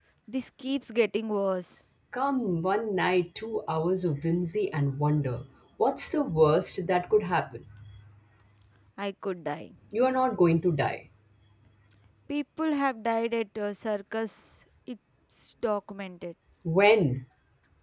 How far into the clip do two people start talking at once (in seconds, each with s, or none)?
none